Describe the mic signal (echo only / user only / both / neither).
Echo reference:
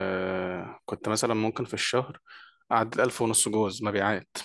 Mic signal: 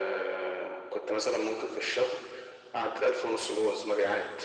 echo only